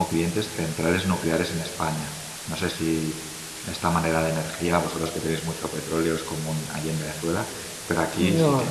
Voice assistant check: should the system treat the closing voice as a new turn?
No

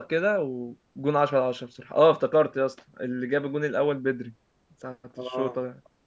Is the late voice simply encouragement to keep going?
Yes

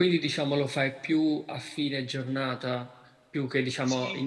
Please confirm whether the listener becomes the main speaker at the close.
Yes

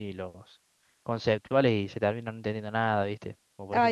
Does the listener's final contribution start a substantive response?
Yes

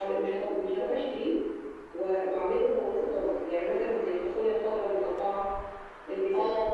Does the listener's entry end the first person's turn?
No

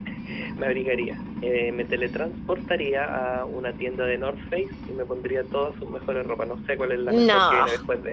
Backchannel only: Yes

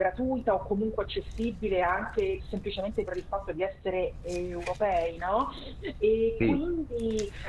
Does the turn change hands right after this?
No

